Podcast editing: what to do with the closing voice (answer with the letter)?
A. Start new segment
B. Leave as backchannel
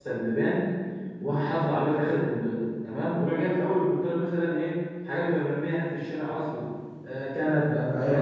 B